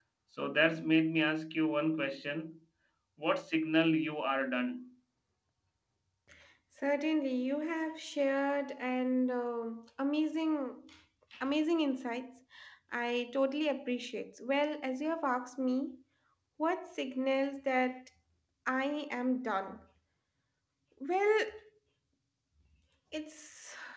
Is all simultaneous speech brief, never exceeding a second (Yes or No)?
Yes